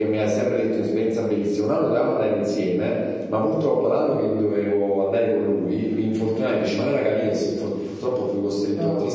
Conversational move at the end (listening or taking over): listening